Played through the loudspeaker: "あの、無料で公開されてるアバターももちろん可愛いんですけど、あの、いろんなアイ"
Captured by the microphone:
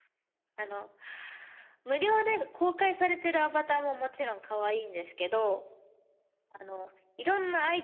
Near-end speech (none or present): none